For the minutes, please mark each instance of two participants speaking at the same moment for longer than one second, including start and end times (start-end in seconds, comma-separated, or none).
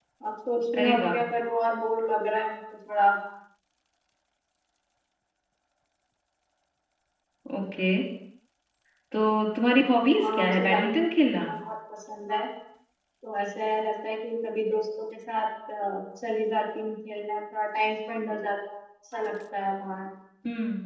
10.2-11.5